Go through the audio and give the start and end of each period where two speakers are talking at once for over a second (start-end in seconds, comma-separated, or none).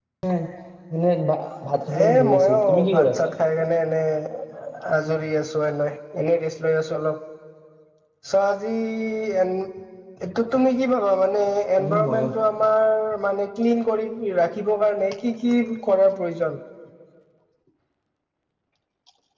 2.1-3.3